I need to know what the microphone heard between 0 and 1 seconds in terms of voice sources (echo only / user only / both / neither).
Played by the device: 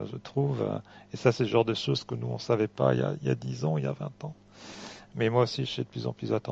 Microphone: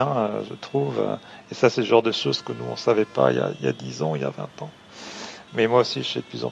echo only